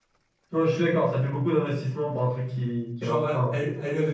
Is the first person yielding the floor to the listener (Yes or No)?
Yes